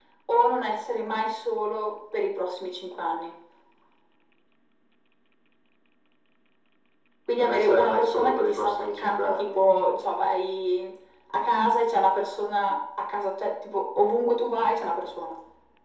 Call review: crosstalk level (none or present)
present